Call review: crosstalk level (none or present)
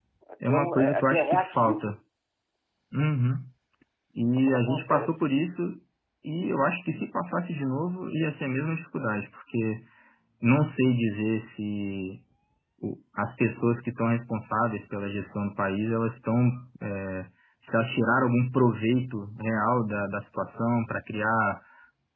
present